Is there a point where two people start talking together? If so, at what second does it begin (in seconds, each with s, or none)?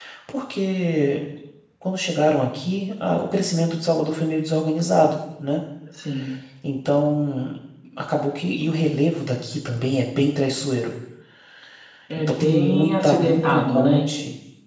12.4 s